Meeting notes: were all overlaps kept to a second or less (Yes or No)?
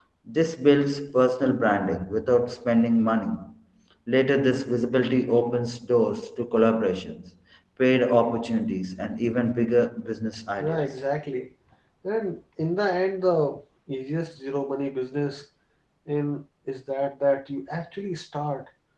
Yes